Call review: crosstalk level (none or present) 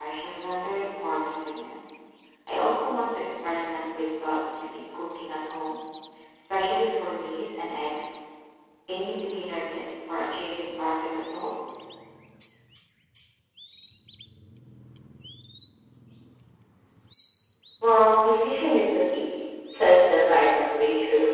none